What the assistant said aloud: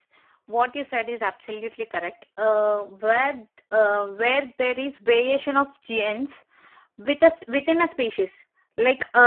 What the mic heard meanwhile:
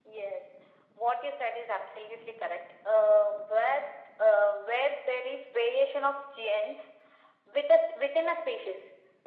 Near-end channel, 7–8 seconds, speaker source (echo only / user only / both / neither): echo only